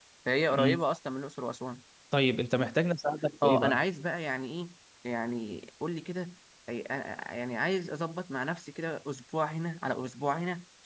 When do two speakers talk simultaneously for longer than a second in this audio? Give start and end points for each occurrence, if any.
none

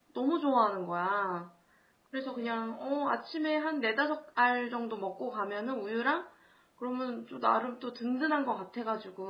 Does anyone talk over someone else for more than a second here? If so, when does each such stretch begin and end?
none

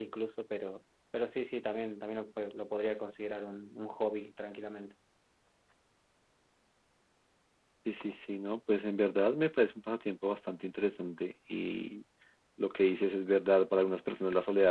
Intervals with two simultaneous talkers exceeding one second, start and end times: none

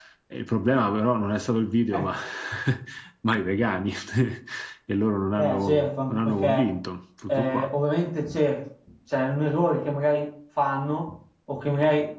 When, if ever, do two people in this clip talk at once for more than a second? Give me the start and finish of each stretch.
5.4-6.7

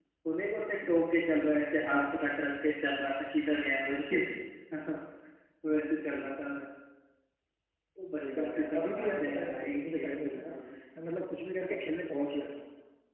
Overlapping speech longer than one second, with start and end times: 8.2-10.5

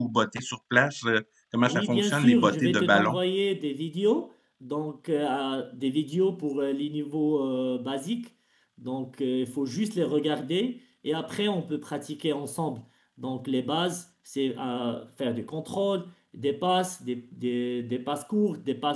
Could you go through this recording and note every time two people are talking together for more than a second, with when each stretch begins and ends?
1.6-3.2

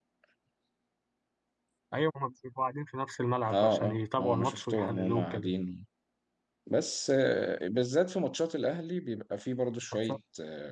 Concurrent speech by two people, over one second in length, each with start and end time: 3.5-5.5

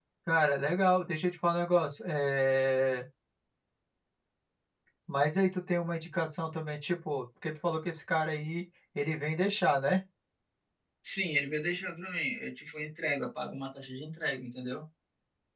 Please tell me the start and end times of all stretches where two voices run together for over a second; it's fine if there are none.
none

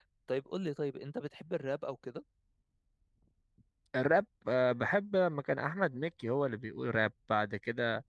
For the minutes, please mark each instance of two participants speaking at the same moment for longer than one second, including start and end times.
none

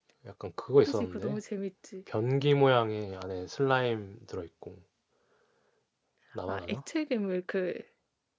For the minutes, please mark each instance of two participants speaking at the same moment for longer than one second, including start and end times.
none

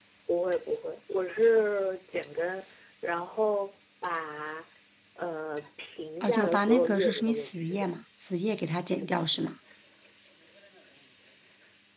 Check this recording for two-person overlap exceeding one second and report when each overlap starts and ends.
6.2-7.9

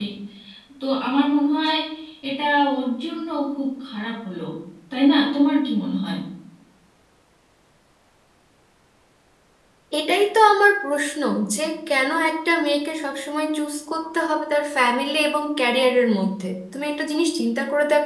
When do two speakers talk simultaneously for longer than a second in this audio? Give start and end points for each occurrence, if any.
none

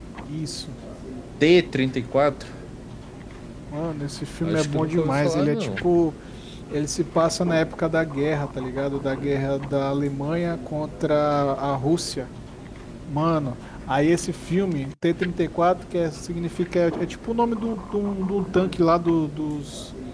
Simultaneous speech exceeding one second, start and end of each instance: 4.4-5.8

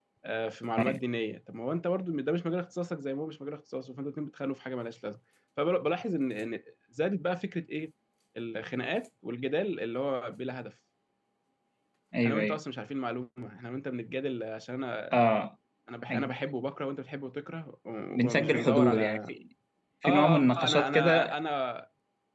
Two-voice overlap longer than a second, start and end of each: 18.1-19.3, 20.1-21.3

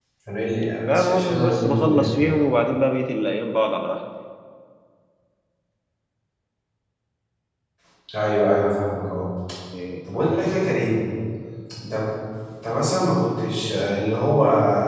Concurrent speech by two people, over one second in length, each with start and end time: 0.9-2.2

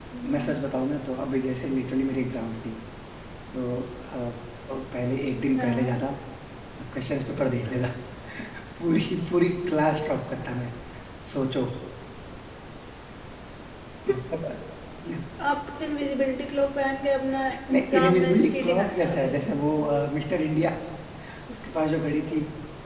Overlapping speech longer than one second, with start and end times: 17.9-19.4

